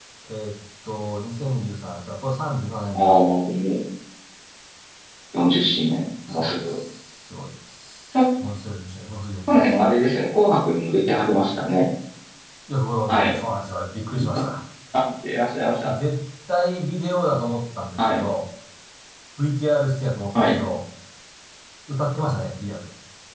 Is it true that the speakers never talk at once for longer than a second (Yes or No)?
Yes